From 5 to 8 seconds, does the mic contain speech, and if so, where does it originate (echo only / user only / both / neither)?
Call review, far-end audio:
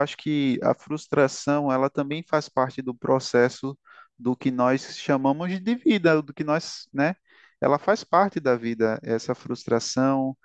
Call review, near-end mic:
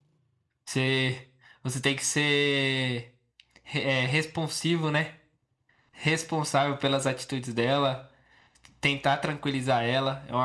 user only